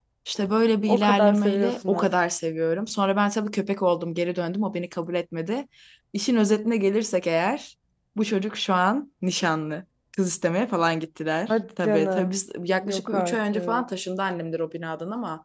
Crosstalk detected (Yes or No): Yes